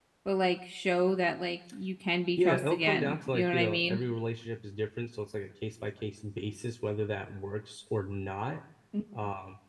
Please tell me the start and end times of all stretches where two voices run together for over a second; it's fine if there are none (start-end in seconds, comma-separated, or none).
2.4-4.0